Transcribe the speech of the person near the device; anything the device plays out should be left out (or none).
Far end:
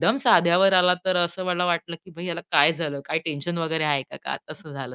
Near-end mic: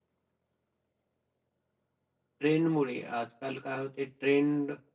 ट्रेंडमुळे आजकाल काय होते ट्रेंड